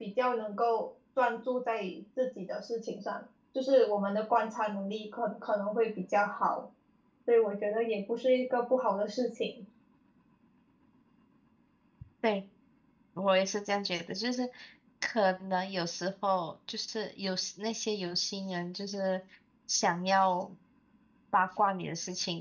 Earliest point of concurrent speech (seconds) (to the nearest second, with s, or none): none